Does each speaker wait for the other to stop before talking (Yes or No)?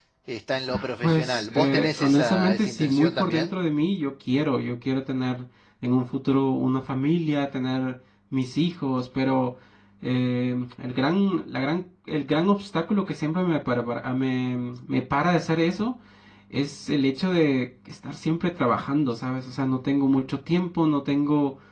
No